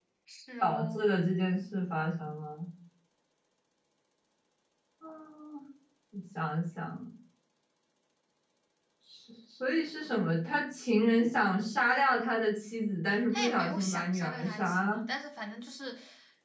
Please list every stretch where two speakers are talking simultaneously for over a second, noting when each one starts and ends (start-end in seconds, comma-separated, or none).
13.3-15.0